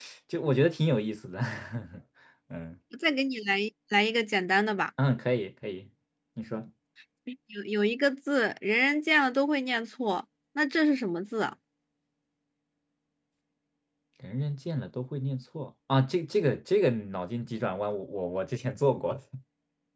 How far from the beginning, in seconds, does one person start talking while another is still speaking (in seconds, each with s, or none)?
none